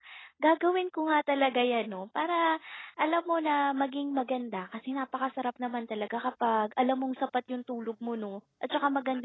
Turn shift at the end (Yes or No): No